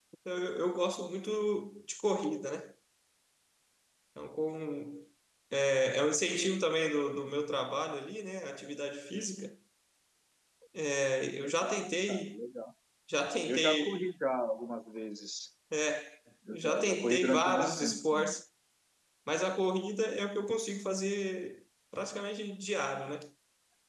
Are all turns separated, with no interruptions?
No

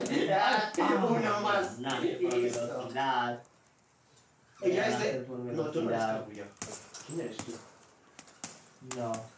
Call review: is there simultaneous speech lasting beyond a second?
Yes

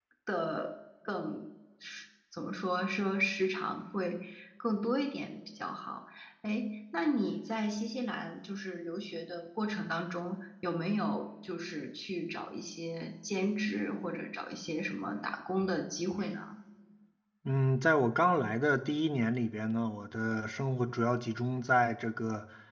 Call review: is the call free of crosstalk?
Yes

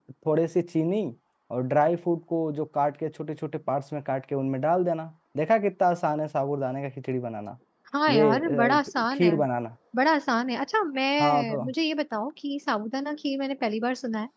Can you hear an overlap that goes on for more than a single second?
Yes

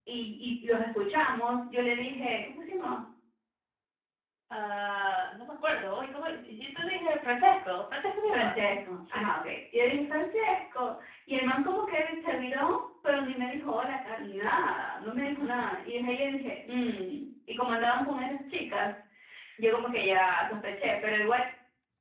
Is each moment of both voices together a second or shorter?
Yes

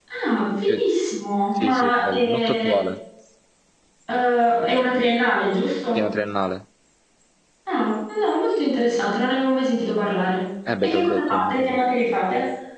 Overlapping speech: Yes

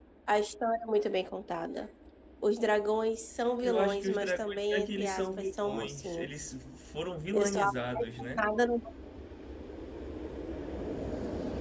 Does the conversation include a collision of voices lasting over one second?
Yes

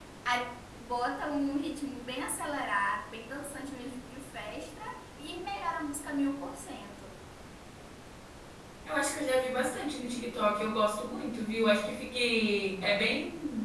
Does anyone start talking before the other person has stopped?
No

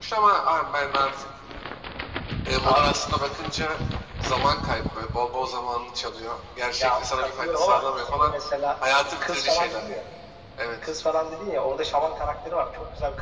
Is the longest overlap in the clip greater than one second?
Yes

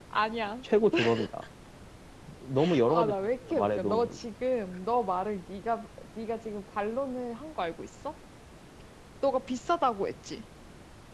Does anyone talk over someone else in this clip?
Yes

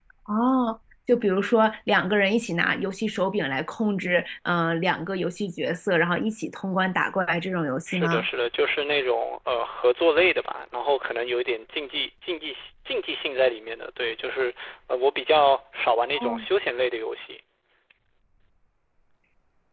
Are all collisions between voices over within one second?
Yes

